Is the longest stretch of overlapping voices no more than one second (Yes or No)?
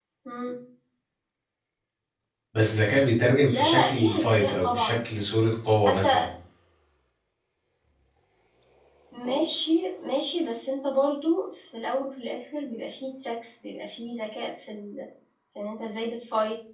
No